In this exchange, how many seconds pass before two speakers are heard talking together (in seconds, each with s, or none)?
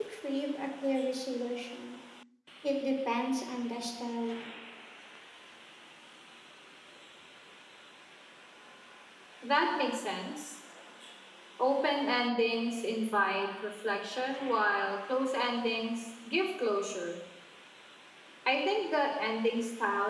none